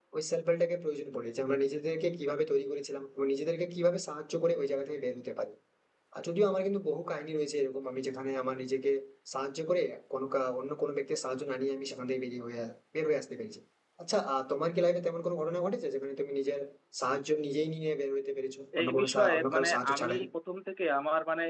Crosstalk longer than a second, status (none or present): present